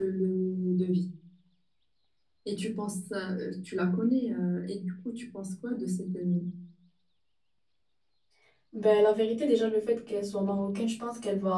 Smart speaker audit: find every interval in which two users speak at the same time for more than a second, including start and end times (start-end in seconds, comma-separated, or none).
none